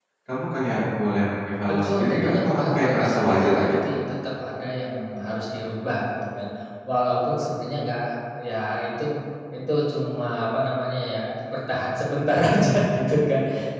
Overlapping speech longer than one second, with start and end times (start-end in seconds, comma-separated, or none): 1.7-3.8